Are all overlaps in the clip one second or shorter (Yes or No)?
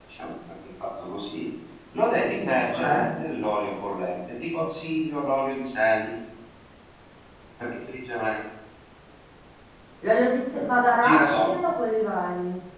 Yes